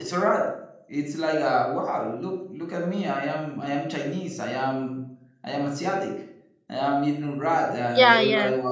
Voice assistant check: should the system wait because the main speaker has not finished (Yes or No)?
Yes